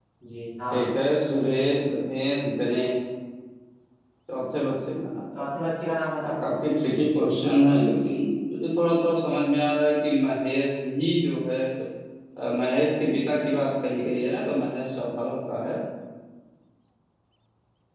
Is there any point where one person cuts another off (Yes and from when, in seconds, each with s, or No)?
No